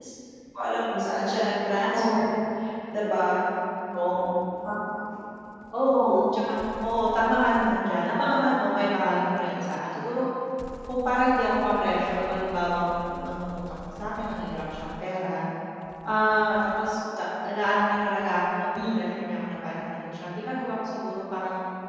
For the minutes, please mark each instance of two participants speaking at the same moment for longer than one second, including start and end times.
none

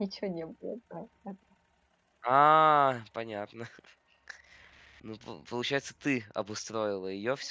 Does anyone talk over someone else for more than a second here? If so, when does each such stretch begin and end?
none

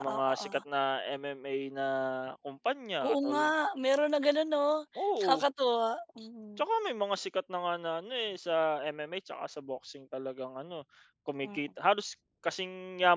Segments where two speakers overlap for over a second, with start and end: none

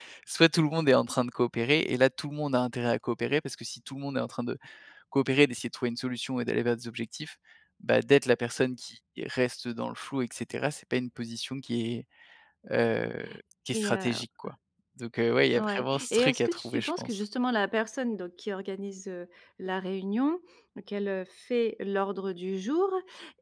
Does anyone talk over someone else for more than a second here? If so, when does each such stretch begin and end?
15.6-17.2

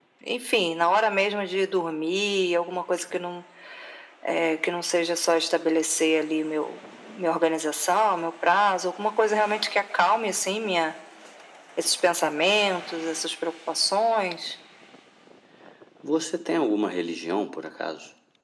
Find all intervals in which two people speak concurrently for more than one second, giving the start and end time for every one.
none

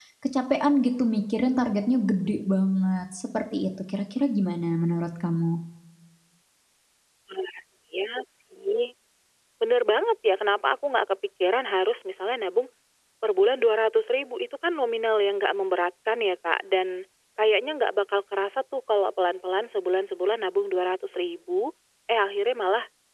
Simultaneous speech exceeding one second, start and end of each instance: none

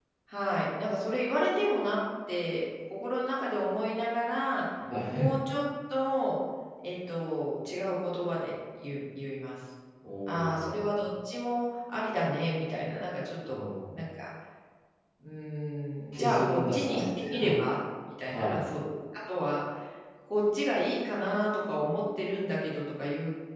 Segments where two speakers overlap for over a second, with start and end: 16.2-17.5

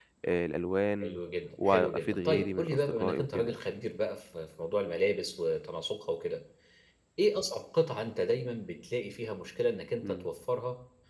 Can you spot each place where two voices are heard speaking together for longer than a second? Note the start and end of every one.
1.6-3.6

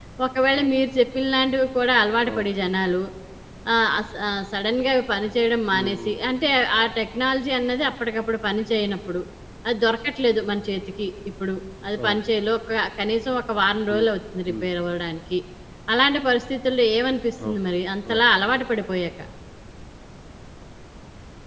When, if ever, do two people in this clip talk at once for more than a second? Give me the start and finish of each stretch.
none

